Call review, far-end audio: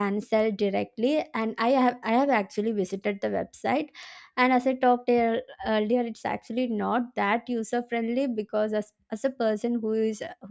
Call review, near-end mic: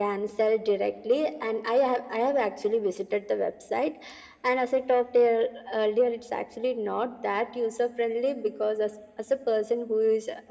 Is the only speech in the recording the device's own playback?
Yes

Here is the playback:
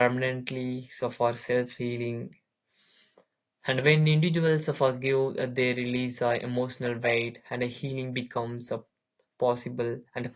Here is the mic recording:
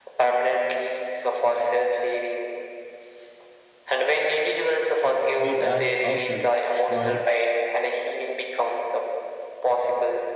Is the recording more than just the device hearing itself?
Yes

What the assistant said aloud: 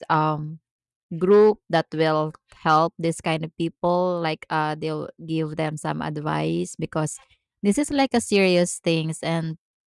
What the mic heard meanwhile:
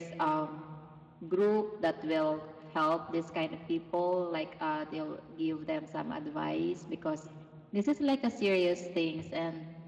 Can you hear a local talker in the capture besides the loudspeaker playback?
No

